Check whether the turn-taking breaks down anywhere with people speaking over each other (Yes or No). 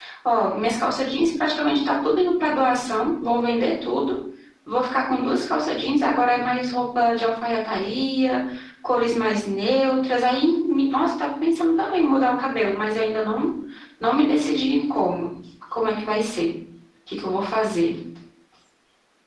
No